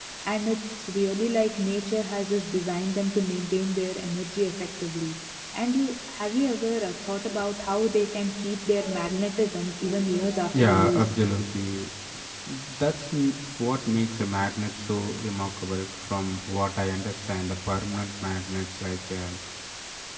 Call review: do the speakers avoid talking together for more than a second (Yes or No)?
Yes